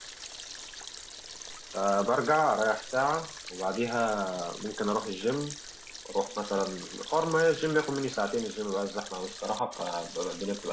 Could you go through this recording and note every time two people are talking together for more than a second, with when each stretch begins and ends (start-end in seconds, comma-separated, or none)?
none